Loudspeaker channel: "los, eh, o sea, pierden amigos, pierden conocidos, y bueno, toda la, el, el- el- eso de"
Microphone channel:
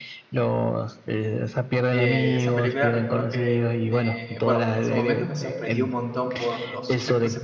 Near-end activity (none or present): present